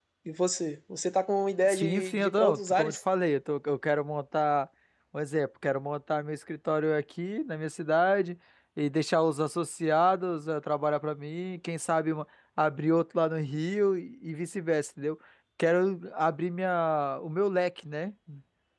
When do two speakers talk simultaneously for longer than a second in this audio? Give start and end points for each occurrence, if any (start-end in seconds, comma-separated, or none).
1.6-3.0